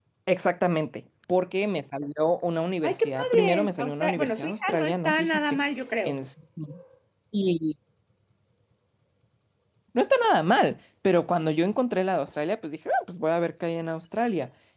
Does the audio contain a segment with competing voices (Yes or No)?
Yes